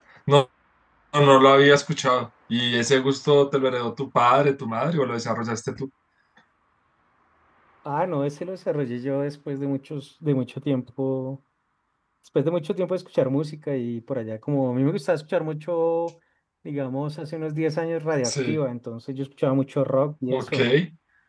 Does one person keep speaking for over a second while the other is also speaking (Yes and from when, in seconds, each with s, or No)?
No